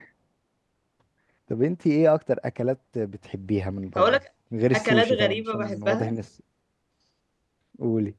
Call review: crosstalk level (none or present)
present